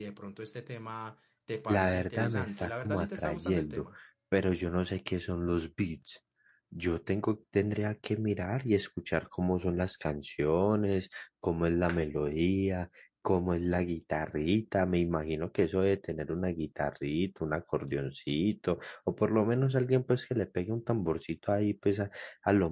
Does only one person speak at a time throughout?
No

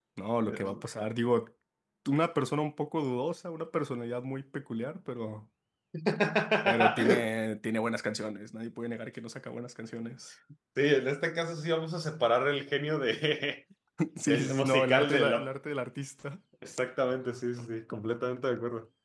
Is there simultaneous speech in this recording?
Yes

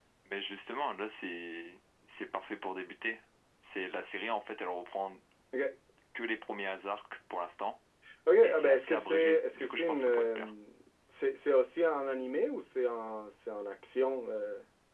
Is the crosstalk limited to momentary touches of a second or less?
No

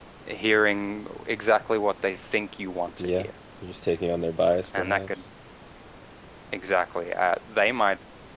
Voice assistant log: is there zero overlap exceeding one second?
Yes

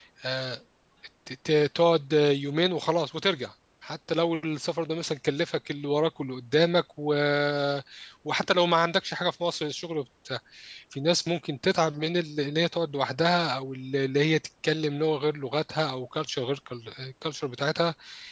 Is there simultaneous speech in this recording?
No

